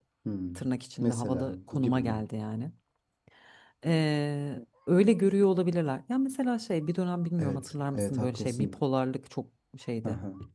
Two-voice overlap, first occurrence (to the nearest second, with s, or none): 1 s